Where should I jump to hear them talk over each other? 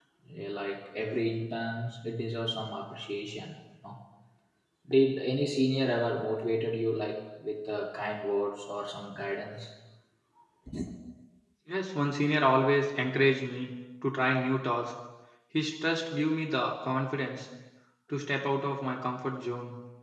none

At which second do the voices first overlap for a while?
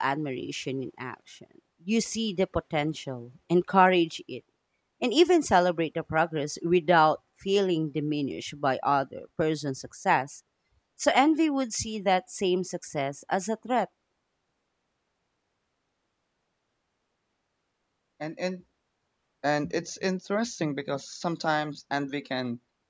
none

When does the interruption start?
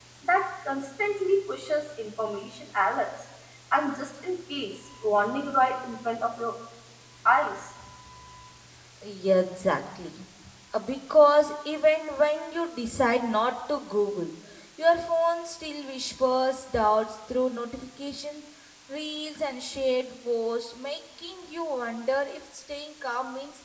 none

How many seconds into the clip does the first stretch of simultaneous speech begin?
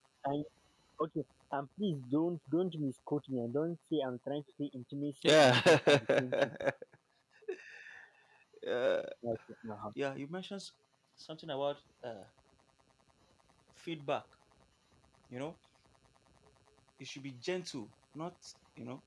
5.2 s

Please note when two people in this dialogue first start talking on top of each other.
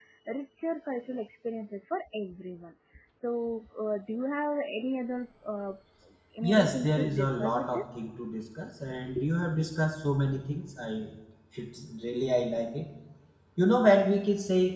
6.4 s

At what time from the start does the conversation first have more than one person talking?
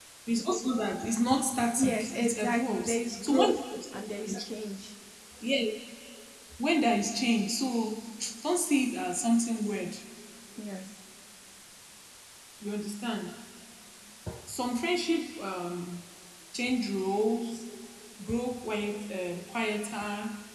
1.8 s

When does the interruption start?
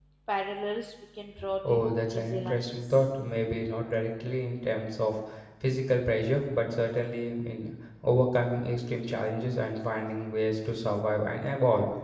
1.6 s

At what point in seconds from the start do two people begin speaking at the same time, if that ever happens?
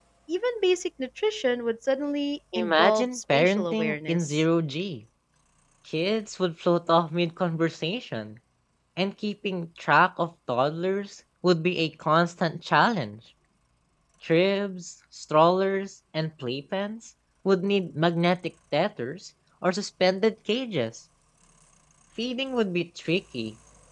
2.5 s

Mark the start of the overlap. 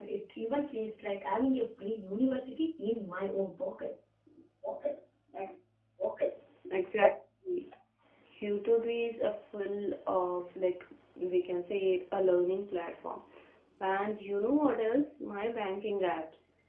none

